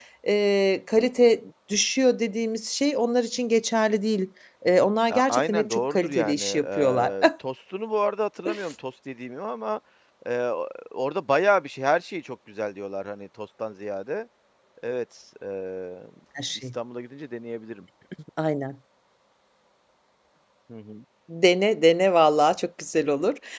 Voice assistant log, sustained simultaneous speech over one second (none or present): present